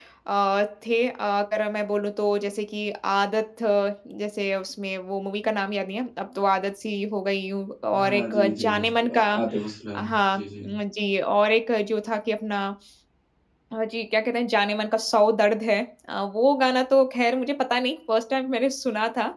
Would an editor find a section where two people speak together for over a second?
Yes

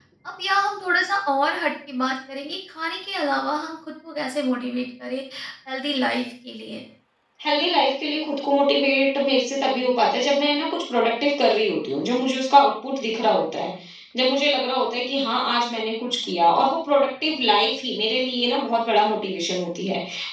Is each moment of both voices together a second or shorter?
Yes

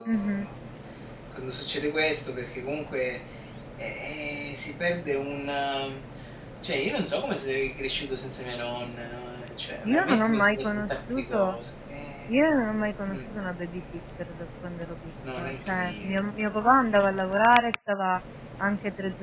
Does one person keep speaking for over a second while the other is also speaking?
Yes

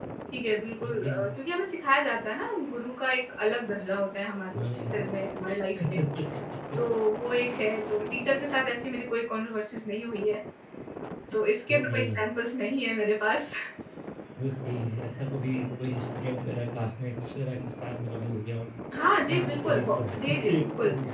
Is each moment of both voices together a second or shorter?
No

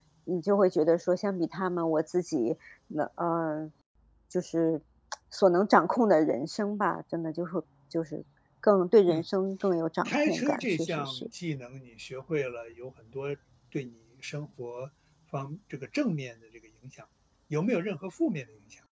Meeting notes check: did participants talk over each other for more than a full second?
Yes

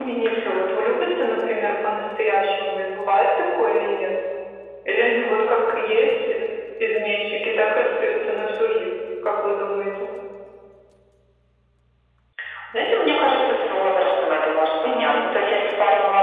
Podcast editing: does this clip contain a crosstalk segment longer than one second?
No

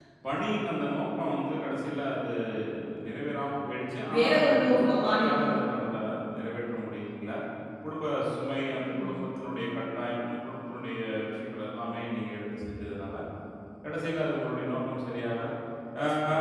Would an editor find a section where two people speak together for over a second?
Yes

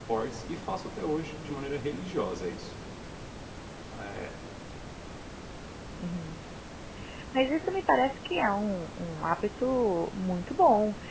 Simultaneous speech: No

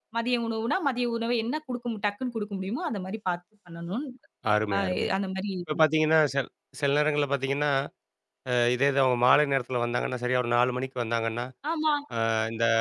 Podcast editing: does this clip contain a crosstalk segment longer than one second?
No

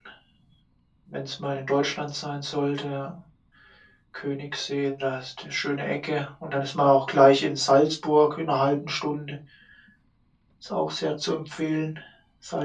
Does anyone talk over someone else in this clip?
No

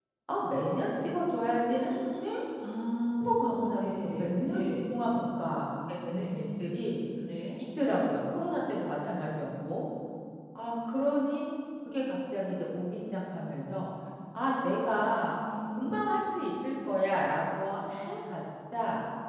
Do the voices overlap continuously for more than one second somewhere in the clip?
Yes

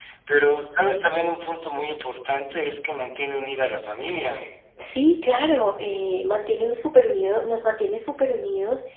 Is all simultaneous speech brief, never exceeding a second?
Yes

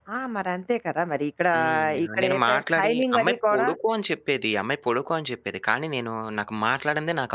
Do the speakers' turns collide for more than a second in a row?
Yes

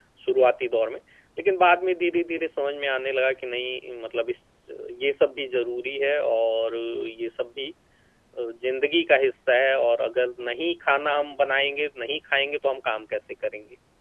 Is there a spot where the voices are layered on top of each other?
No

